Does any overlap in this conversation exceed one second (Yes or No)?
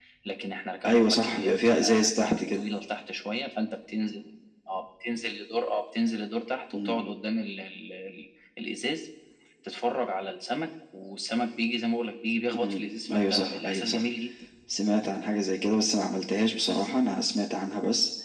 Yes